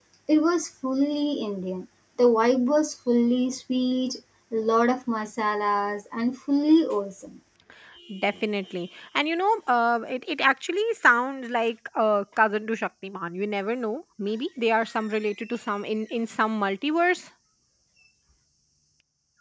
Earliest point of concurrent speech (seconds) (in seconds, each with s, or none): none